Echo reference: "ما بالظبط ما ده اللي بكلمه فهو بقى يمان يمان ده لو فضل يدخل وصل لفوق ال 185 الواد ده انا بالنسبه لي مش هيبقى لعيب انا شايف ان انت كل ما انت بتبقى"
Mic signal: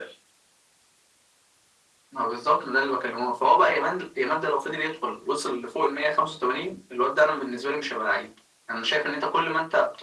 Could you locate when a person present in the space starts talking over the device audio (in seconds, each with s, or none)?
none